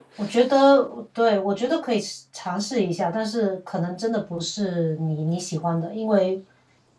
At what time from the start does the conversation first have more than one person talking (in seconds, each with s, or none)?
none